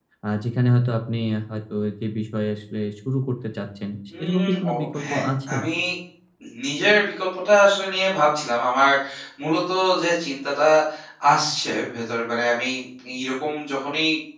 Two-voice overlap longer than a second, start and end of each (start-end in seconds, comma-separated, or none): 4.2-5.6